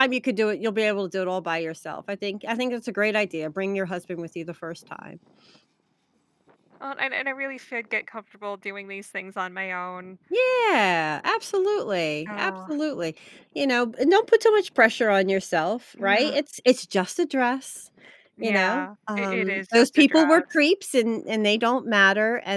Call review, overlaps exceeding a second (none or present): present